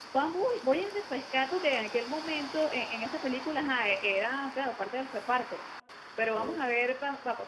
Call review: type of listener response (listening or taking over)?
listening